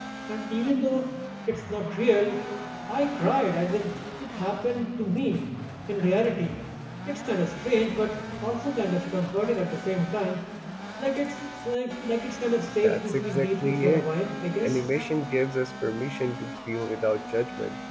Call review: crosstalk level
present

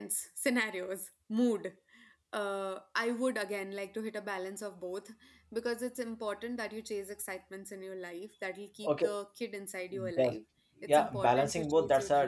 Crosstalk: present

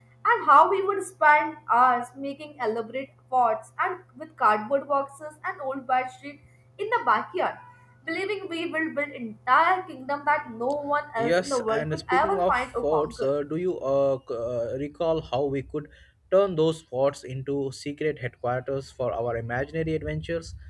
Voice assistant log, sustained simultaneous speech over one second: present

